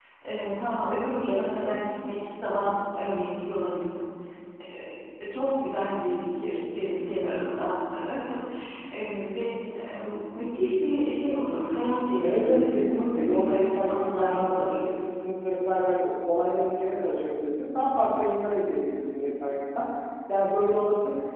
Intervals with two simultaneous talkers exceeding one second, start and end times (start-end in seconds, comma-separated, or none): 12.2-14.7